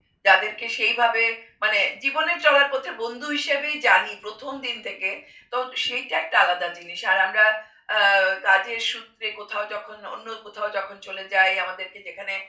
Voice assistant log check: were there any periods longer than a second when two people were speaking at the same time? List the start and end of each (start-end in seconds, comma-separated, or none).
none